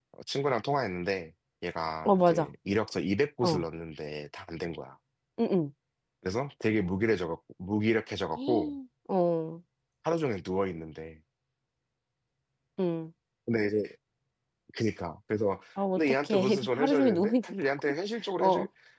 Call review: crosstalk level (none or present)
present